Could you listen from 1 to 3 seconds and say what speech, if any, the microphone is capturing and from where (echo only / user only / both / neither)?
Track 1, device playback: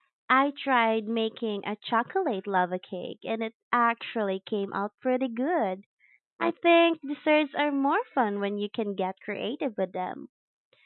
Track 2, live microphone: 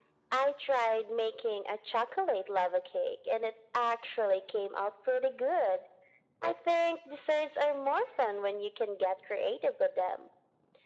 echo only